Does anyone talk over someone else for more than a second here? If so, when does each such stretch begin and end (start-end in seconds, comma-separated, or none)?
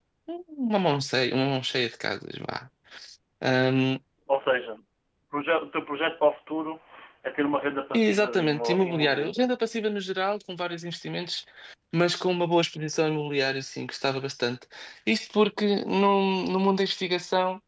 7.9-9.3